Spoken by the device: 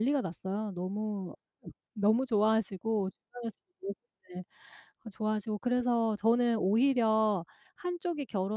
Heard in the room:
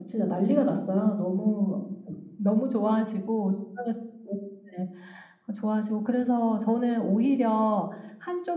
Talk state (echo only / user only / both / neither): echo only